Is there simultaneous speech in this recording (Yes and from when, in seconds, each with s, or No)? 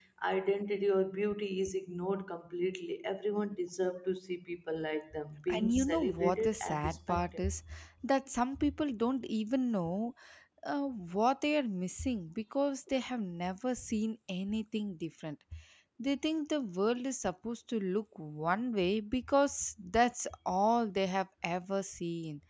Yes, from 5.5 s